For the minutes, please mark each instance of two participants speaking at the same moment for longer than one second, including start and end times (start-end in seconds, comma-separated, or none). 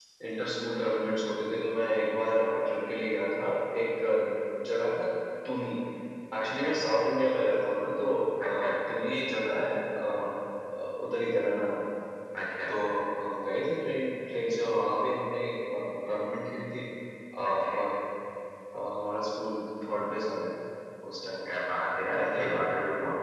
none